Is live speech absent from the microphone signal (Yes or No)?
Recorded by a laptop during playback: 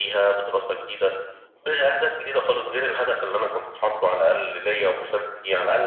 Yes